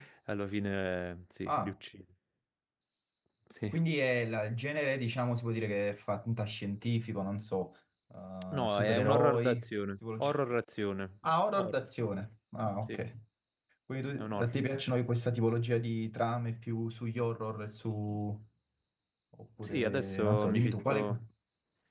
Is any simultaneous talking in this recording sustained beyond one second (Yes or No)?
Yes